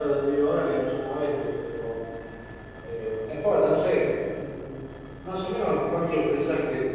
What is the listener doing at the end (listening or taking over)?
listening